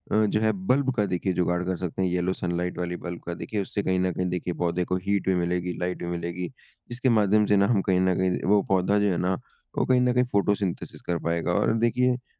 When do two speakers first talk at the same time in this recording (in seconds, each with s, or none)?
none